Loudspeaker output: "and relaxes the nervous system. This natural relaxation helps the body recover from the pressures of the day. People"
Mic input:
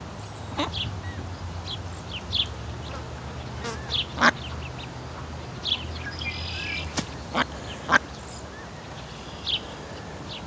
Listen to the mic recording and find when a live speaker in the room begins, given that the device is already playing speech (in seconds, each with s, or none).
none